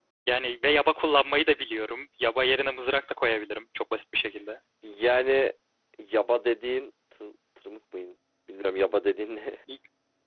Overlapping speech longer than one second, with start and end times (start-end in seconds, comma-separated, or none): none